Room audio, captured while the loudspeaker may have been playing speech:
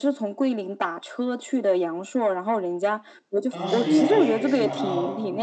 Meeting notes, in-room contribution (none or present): present